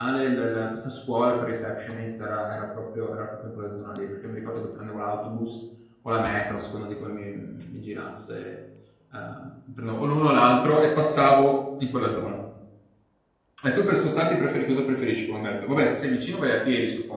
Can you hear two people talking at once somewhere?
No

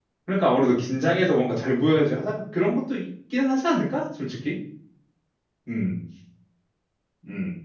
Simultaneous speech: No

